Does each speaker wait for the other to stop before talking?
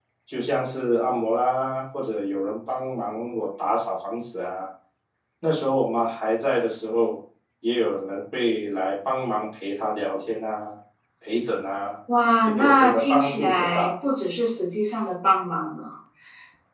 No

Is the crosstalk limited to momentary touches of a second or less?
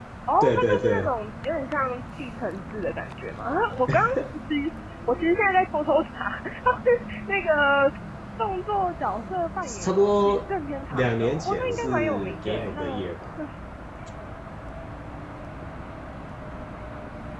No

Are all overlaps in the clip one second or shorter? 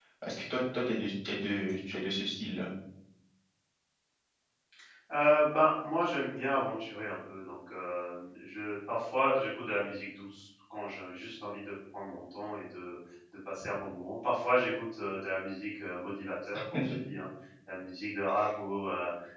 Yes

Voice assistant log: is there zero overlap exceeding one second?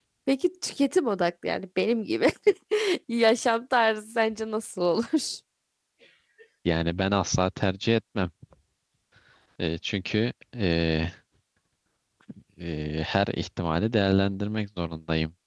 Yes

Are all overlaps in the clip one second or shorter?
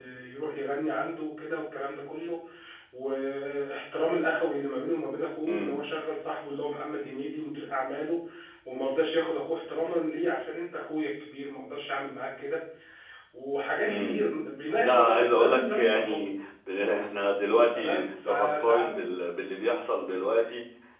No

